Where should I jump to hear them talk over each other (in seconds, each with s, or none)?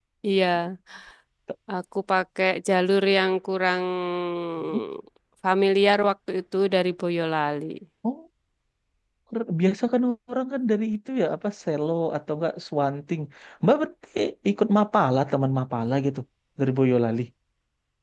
none